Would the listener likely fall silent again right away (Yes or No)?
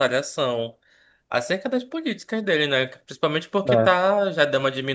Yes